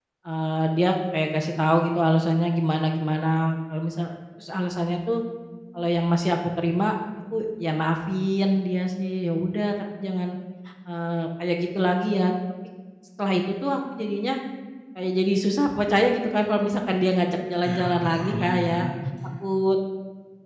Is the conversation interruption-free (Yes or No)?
No